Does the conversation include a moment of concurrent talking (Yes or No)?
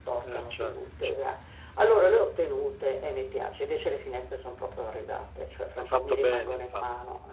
Yes